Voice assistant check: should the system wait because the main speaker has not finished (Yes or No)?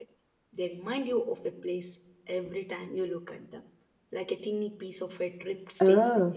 No